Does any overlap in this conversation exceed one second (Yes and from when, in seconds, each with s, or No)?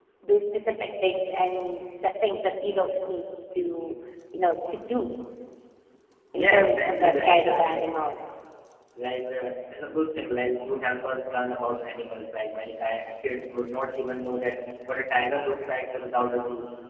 Yes, from 6.3 s